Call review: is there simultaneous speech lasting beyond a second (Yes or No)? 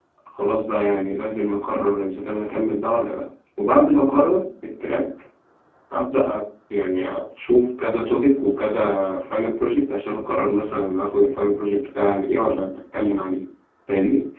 No